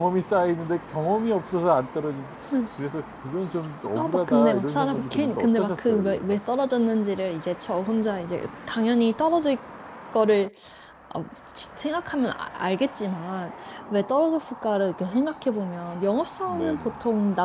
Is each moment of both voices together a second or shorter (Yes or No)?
No